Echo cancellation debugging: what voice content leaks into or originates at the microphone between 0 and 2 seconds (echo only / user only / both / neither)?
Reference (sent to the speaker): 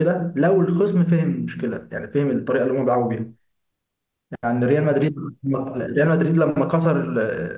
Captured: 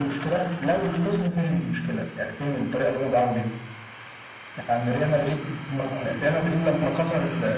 echo only